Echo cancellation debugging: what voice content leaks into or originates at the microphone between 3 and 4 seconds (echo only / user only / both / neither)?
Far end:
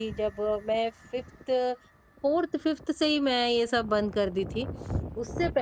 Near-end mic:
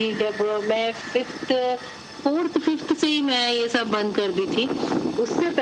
echo only